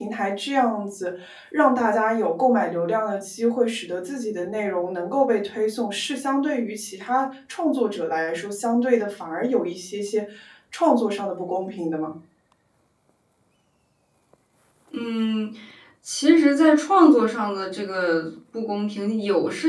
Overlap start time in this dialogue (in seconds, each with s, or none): none